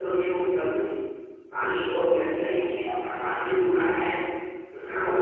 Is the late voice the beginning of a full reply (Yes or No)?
No